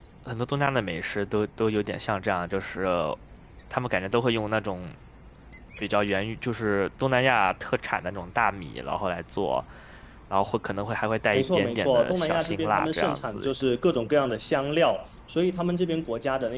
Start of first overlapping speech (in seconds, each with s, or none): 11.3 s